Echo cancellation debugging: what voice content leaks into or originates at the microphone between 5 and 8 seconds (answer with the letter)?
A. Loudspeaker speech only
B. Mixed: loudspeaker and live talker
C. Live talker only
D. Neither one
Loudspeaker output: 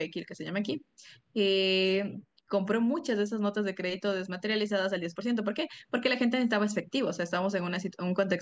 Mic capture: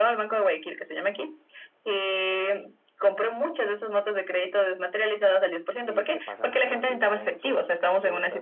B